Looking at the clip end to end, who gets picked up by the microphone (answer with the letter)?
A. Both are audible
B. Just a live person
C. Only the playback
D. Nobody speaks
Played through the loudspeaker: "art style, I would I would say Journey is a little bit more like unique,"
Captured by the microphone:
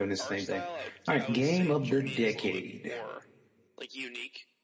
A